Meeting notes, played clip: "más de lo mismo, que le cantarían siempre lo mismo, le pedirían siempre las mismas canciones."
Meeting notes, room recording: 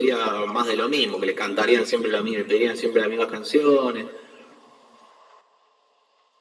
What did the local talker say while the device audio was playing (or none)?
none